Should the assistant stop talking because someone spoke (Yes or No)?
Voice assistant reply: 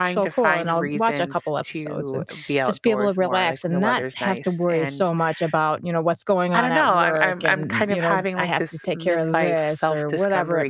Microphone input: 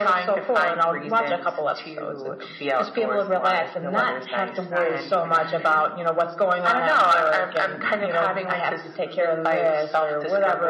Yes